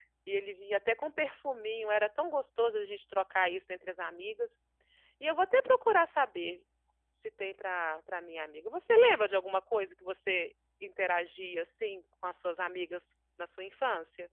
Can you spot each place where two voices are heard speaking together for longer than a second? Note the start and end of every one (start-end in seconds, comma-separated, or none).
none